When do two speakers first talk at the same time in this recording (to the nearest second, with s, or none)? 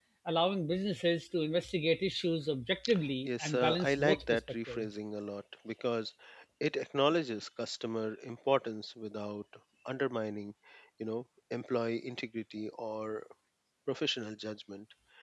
3 s